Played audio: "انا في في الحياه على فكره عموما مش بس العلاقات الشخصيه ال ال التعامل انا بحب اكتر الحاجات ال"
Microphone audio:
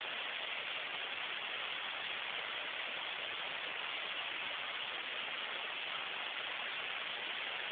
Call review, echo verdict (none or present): none